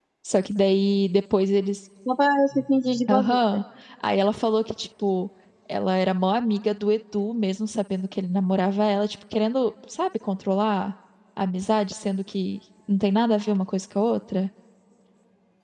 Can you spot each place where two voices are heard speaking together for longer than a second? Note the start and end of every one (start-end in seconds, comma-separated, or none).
none